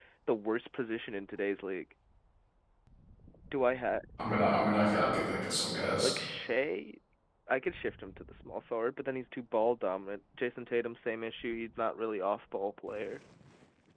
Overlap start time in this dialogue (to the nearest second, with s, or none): none